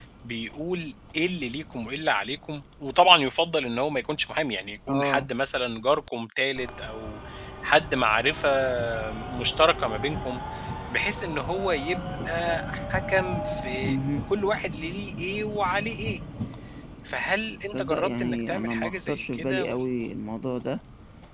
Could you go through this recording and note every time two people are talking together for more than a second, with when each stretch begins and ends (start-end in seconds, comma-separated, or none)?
17.6-19.8